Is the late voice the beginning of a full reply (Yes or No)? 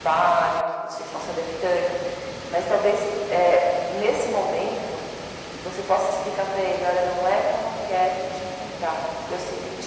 No